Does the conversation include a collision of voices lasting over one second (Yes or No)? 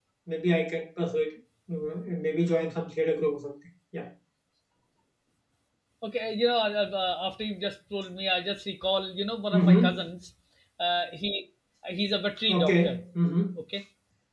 No